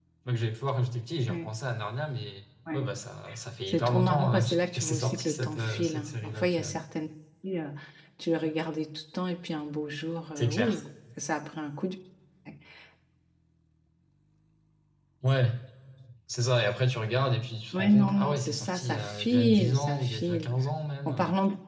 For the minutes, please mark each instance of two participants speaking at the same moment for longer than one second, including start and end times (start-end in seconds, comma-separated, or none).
3.7-6.7, 17.7-20.5